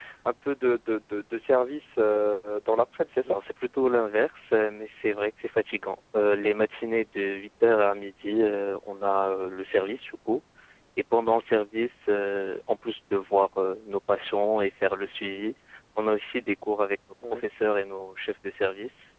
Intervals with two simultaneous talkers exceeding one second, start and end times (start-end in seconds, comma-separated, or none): none